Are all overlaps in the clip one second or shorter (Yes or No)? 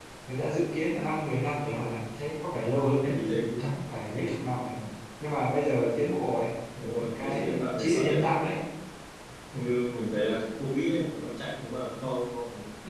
No